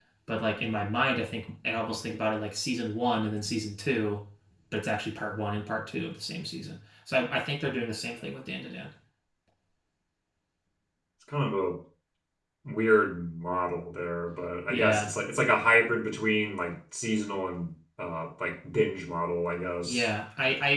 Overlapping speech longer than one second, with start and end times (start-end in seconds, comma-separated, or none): none